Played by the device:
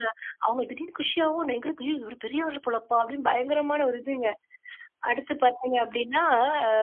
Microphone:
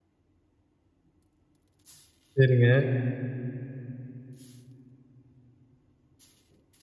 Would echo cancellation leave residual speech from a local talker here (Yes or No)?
Yes